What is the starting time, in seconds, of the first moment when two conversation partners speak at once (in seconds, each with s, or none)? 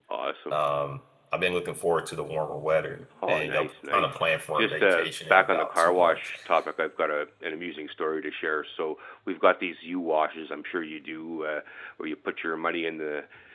3.2 s